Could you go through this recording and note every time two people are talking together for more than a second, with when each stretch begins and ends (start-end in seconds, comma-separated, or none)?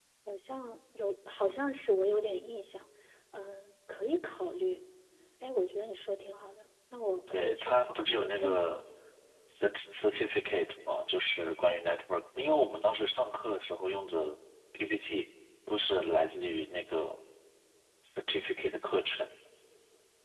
7.3-8.7